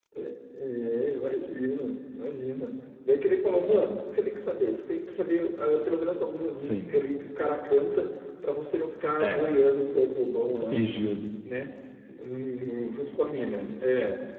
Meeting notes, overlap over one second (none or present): none